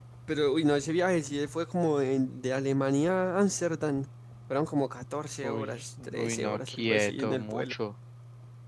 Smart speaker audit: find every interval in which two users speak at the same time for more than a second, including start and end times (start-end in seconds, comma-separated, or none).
5.4-7.7